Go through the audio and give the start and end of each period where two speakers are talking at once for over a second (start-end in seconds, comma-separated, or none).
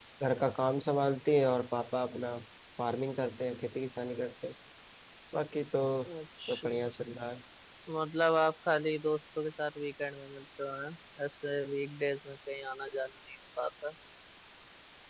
none